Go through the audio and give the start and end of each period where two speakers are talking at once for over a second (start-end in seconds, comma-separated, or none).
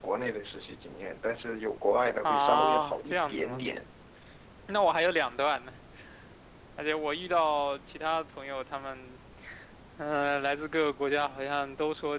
2.2-3.6